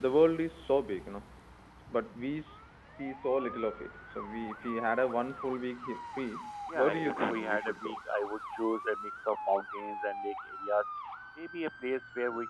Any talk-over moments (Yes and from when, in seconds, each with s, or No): Yes, from 6.7 s